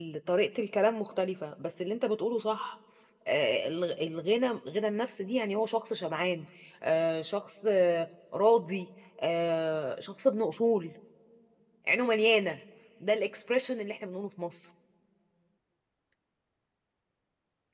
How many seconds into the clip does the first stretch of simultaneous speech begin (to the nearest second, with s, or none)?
none